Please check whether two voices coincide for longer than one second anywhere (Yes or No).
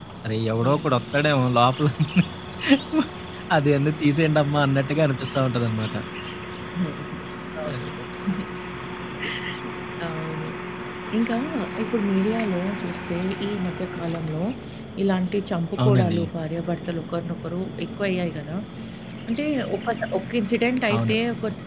No